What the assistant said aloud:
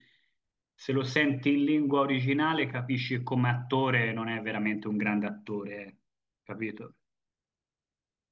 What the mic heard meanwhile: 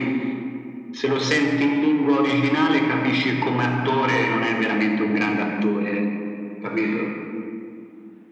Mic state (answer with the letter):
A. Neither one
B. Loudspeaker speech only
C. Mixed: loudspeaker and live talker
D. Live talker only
B